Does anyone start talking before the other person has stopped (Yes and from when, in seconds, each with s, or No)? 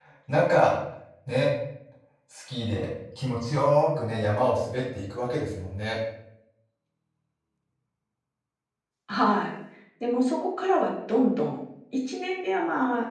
No